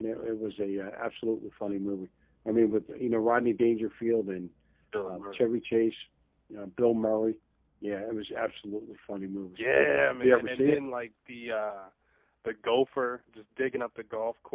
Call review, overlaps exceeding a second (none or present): present